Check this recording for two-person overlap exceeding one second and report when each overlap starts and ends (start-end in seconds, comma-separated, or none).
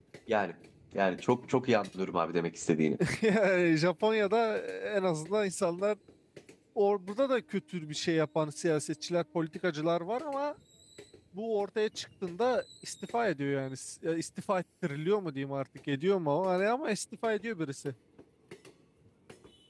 none